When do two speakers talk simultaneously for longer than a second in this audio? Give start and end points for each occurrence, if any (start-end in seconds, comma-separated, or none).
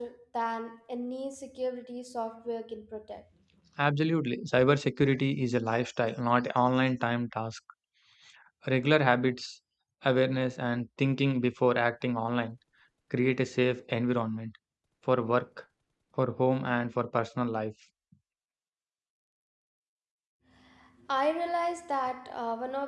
none